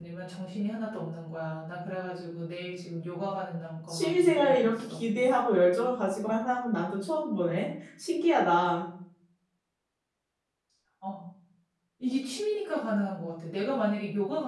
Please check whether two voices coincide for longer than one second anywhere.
Yes, from 3.9 s

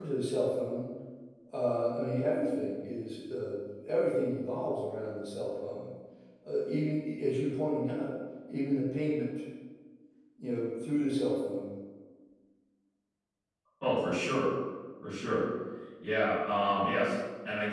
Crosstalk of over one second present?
No

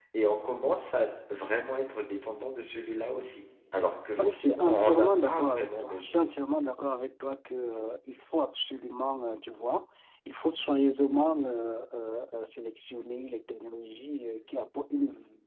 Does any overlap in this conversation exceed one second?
Yes, from 4.2 s

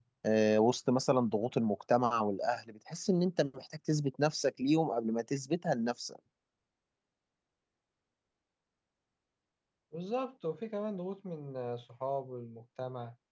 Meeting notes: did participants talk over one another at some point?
No

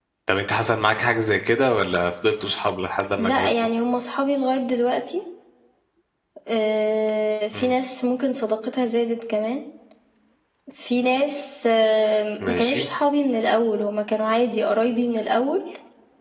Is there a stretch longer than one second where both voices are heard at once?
No

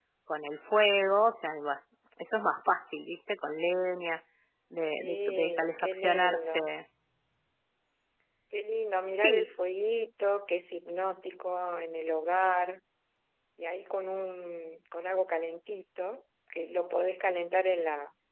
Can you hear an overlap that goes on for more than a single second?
Yes, from 4.9 s

